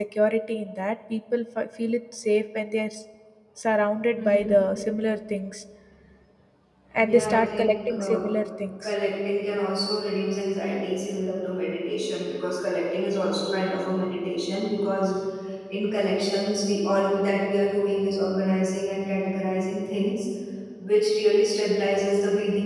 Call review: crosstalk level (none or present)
present